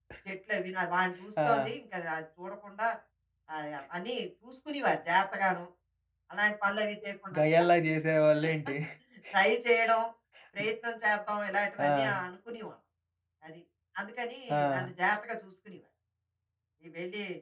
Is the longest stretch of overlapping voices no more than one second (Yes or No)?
Yes